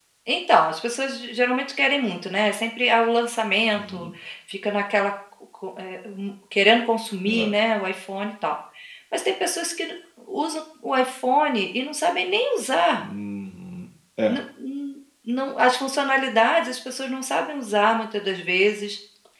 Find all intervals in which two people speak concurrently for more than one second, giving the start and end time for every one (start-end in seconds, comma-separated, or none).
none